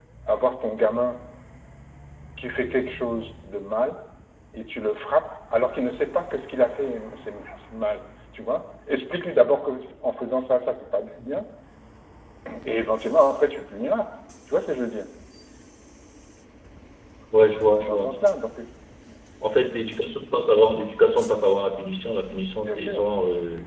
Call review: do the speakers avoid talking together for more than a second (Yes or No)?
Yes